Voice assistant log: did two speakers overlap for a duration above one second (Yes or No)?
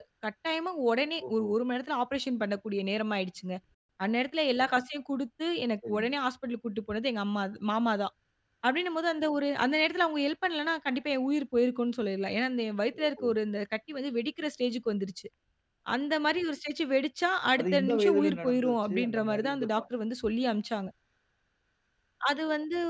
Yes